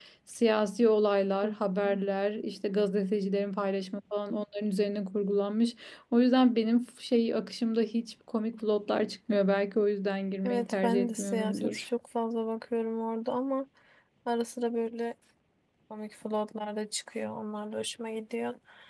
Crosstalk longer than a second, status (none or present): present